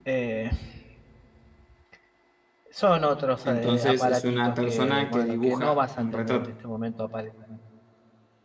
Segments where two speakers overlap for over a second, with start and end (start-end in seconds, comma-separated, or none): 3.4-6.5